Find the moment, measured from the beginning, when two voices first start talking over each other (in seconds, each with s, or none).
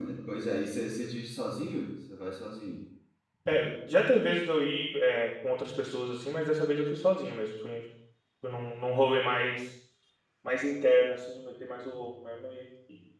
none